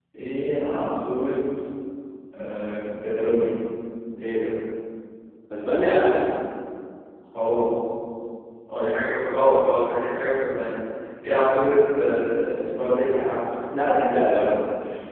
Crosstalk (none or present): none